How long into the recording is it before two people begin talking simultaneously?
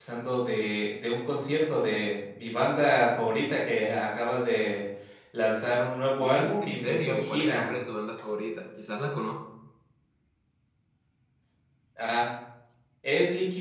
6.2 s

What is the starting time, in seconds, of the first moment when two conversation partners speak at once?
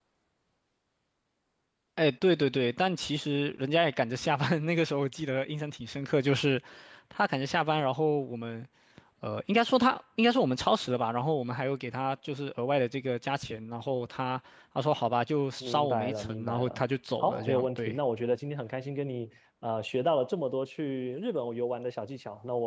15.6 s

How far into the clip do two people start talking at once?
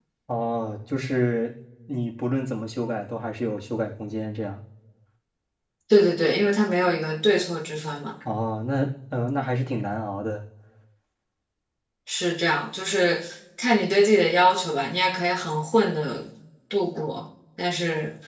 none

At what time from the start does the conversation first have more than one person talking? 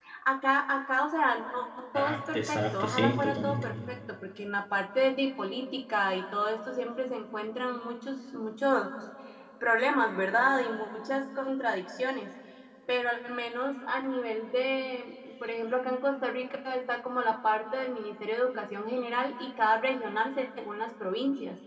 1.9 s

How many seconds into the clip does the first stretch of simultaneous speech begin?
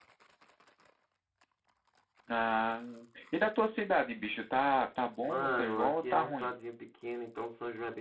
5.2 s

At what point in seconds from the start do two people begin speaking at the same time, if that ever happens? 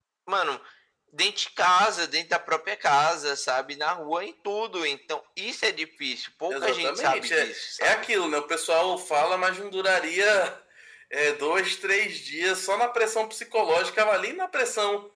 6.5 s

